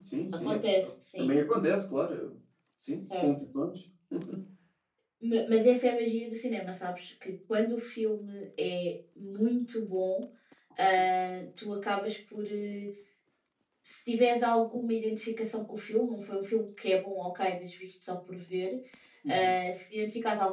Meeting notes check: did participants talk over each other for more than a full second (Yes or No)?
No